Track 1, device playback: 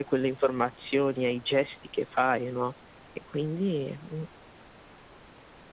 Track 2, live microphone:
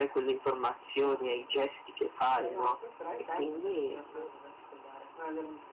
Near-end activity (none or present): present